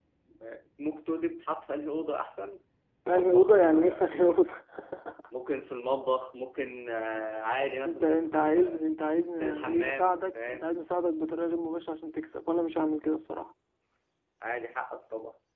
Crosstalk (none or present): present